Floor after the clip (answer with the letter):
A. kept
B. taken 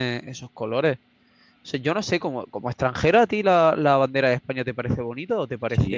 B